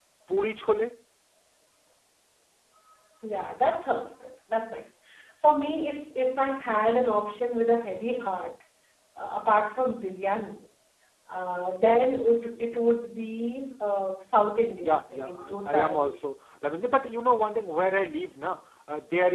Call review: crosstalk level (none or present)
present